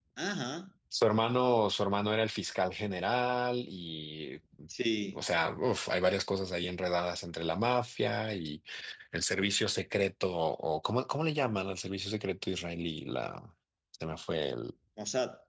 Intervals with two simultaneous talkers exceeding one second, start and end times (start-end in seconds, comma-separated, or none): none